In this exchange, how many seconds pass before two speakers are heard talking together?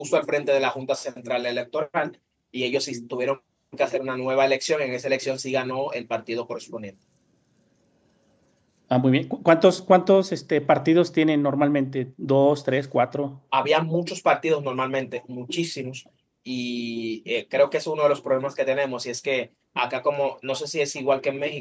none

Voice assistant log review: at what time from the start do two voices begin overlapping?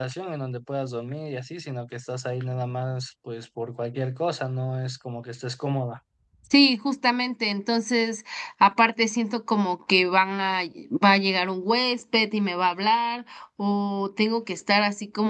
none

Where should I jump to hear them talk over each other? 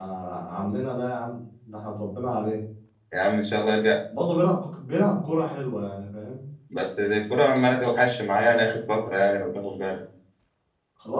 none

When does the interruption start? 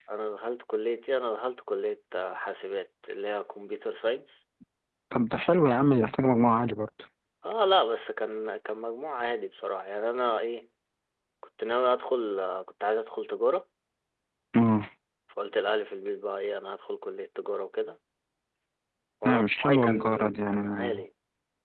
19.2 s

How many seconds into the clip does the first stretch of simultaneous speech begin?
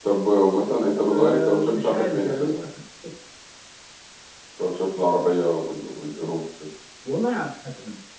1.1 s

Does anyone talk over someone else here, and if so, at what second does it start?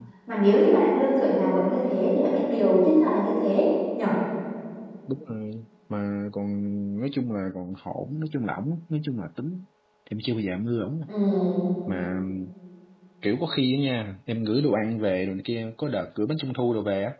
none

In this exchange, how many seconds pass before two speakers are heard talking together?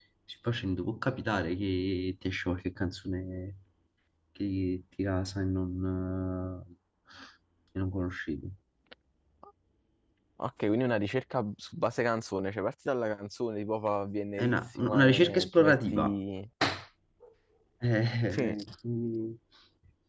14.4 s

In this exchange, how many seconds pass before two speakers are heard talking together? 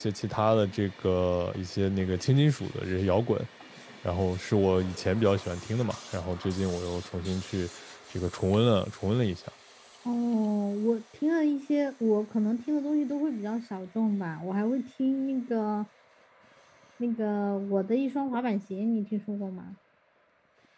none

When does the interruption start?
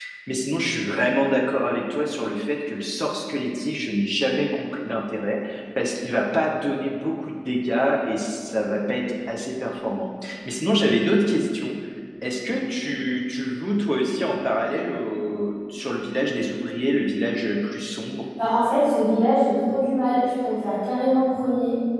none

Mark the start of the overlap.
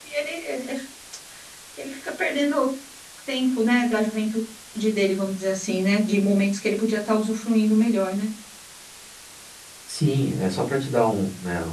none

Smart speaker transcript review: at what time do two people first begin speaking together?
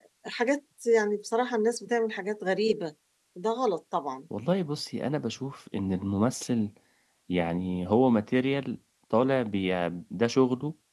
none

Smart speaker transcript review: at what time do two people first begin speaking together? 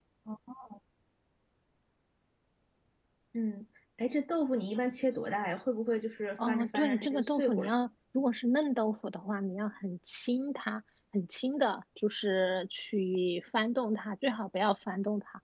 6.4 s

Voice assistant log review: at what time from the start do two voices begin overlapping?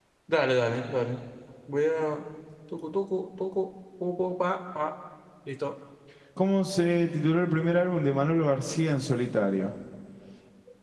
none

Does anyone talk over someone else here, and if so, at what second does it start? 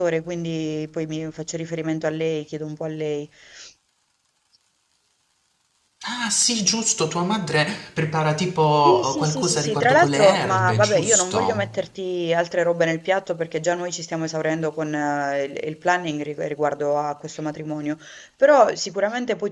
8.8 s

